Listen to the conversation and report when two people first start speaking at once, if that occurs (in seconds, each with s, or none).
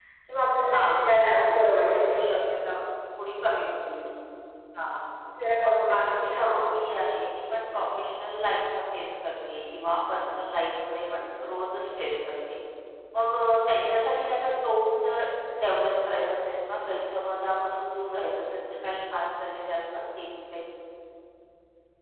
0.7 s